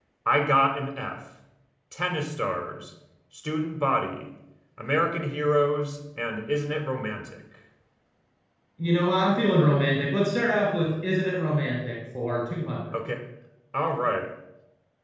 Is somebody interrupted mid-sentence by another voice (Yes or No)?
No